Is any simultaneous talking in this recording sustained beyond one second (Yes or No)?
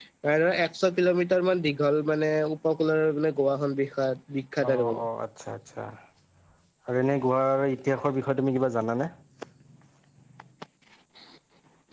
No